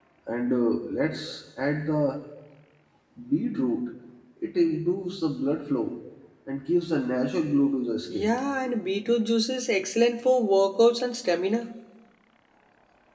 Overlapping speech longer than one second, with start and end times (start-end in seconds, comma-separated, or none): none